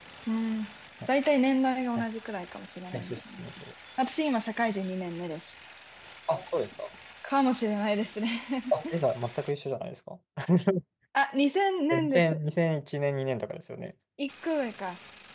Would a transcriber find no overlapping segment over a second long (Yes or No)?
Yes